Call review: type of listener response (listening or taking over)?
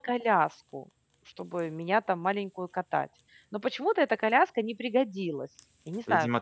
taking over